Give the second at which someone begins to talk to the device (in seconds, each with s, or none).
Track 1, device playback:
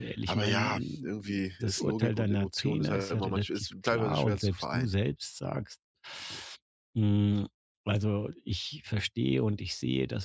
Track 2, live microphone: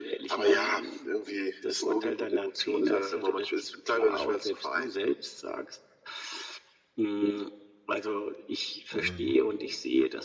8.9 s